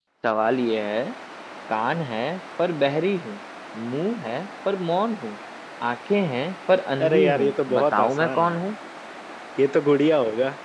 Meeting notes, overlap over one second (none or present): present